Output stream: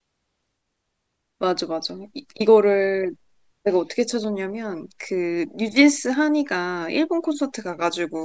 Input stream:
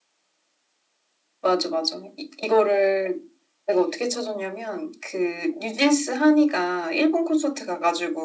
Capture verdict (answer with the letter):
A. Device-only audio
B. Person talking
A